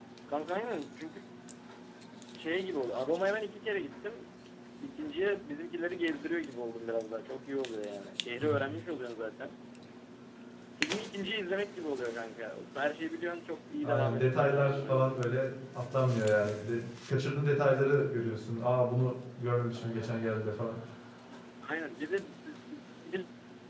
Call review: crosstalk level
present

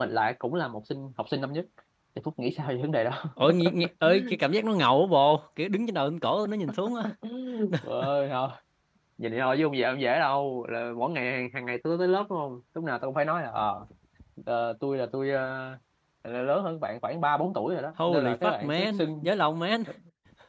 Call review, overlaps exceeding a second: present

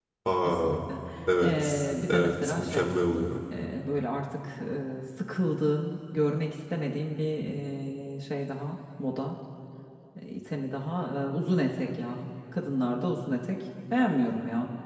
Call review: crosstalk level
present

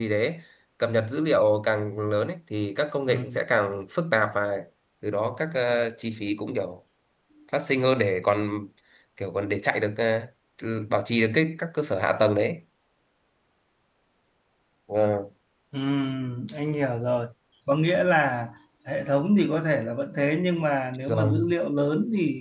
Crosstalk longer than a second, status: none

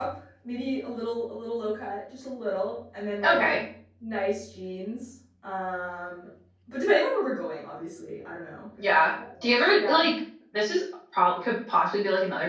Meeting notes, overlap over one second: none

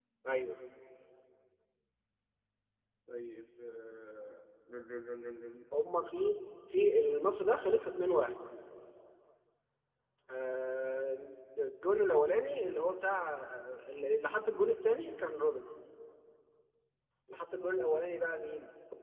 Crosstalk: none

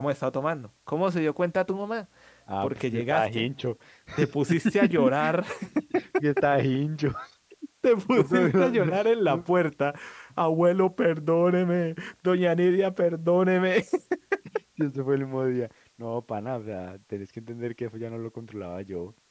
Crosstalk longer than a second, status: present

